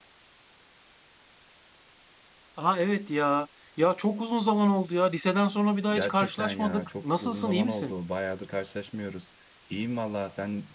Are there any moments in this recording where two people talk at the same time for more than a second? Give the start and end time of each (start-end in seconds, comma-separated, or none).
5.9-7.9